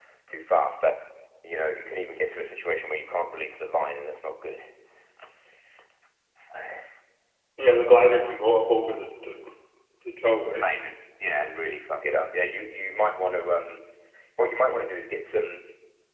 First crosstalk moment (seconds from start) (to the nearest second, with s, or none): none